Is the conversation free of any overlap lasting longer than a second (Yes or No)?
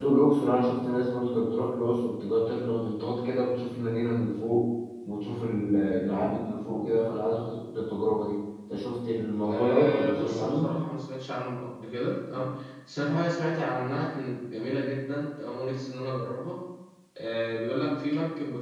No